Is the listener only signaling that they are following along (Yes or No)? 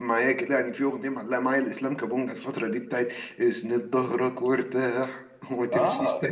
No